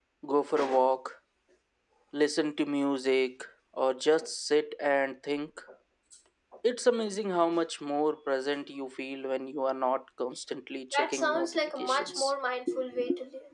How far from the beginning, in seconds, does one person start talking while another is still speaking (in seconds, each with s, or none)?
10.9 s